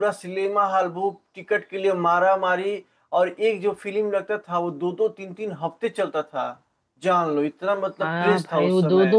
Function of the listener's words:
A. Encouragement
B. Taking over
B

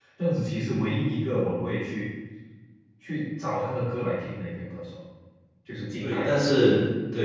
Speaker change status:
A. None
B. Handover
B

